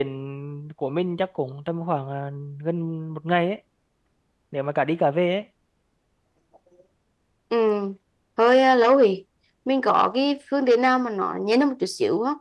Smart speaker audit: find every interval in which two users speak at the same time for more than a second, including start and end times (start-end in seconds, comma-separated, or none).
none